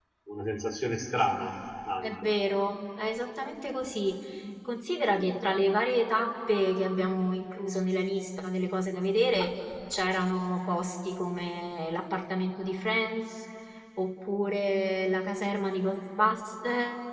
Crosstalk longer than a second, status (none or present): none